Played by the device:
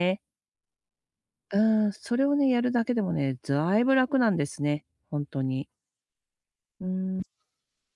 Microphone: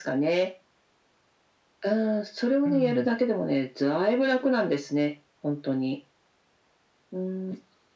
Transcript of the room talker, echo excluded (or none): うん。